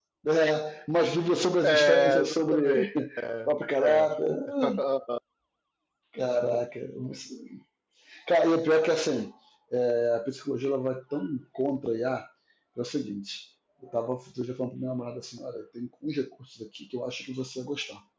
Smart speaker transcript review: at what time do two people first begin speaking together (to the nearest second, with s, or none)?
2 s